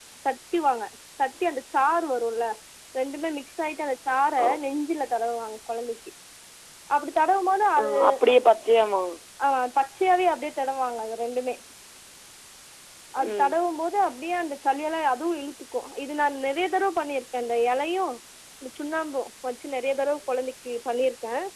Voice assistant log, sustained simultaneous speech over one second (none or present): none